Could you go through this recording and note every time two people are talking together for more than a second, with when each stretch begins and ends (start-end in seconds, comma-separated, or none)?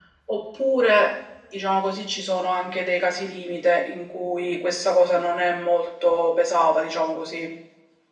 none